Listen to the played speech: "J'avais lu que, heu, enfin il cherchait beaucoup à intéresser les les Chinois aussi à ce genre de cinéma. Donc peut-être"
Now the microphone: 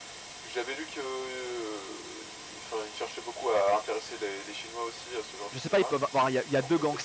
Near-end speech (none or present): present